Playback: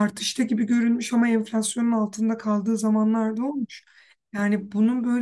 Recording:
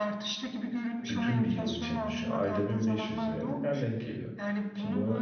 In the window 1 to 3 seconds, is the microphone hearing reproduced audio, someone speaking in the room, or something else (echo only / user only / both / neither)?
both